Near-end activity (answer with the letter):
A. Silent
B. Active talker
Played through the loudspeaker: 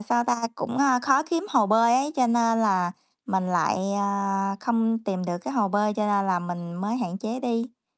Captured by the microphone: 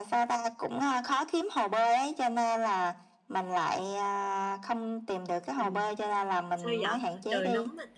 B